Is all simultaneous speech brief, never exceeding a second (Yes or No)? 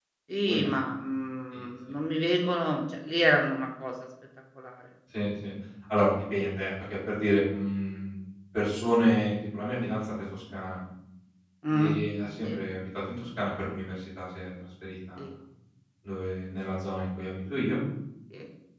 Yes